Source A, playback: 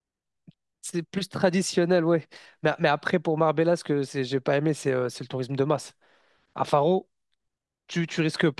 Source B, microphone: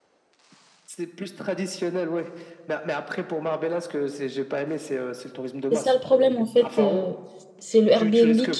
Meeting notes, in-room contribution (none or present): present